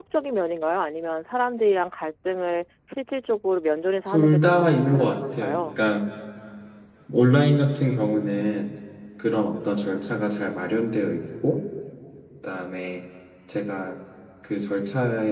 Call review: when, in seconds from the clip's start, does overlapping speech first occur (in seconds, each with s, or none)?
4.1 s